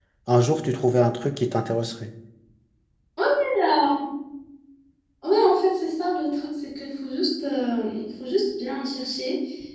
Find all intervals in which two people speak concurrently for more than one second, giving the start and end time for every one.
none

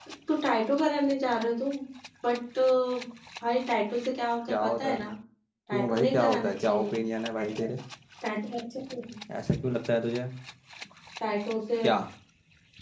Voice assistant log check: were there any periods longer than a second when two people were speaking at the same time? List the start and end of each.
5.7-6.9

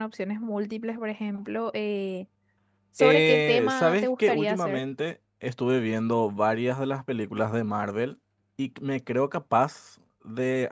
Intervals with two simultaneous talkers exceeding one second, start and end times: 3.0-4.9

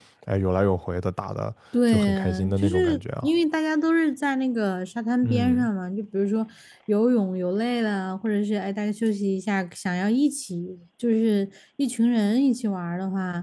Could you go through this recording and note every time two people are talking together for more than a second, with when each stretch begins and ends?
1.9-3.3

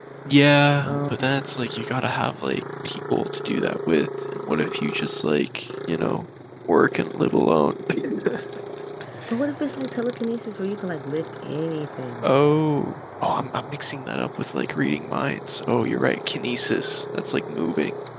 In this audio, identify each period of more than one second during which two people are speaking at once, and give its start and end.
none

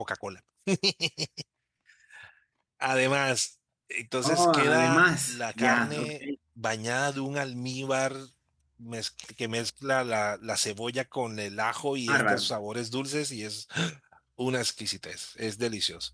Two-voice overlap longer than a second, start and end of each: 4.2-6.1

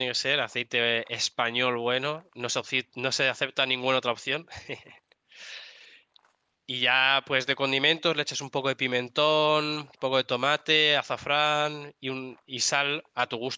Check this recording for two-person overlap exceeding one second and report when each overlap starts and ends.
none

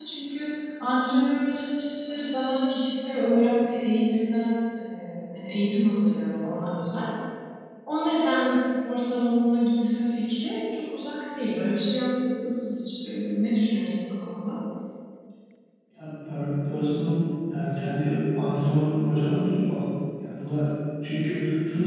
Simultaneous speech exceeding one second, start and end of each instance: none

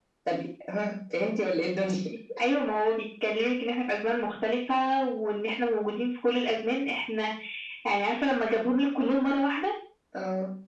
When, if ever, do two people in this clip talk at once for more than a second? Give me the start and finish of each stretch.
none

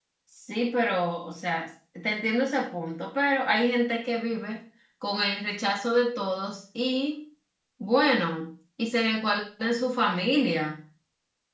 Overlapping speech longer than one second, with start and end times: none

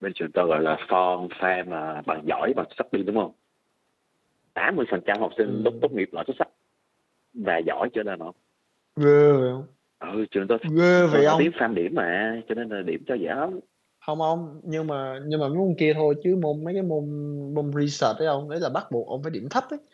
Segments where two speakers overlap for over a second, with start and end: none

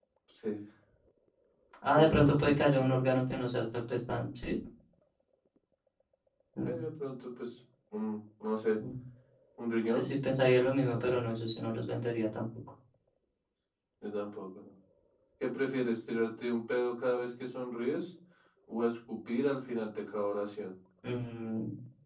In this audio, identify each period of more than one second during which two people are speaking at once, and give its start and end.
1.9-3.2

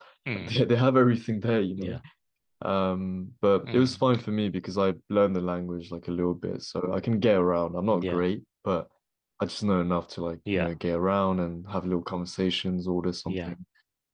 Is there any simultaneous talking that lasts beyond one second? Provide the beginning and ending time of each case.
none

